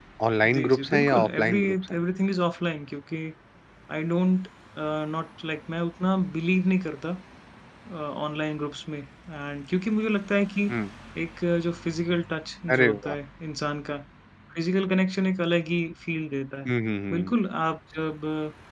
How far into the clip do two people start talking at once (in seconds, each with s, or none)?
0.5 s